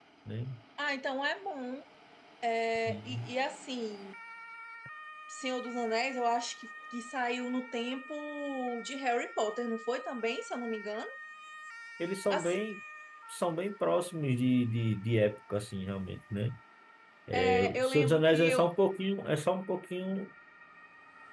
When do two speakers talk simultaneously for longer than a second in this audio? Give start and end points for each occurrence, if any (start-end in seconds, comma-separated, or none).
17.3-18.7